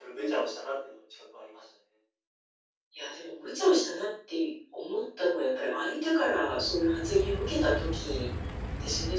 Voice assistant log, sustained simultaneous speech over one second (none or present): none